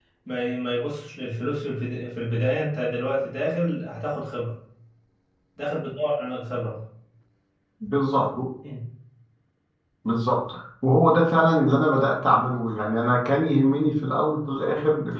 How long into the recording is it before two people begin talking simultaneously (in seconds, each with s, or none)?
none